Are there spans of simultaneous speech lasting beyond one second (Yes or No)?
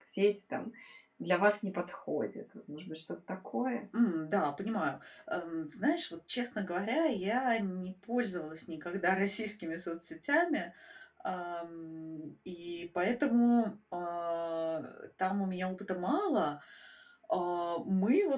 No